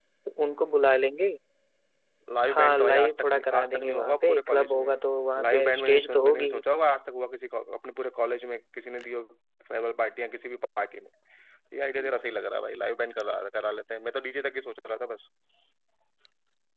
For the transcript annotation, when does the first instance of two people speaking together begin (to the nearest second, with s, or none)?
2 s